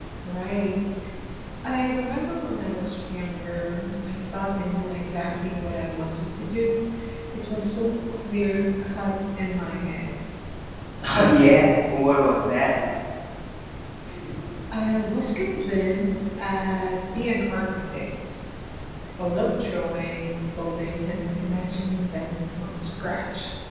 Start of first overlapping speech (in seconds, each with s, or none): none